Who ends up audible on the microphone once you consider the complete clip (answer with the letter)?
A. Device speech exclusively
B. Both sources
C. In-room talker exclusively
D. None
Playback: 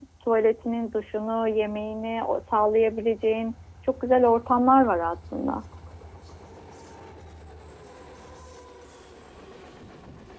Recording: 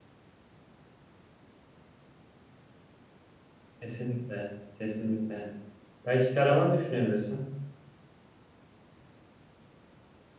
C